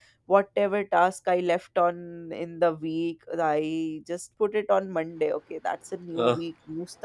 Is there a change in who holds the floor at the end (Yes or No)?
No